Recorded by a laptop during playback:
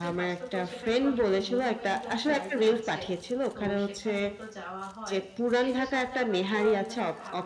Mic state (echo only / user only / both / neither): both